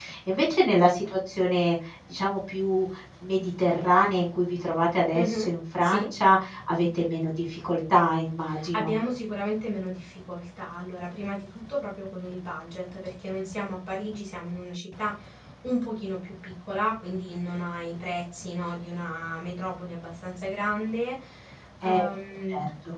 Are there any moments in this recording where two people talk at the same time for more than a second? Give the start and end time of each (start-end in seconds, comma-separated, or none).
none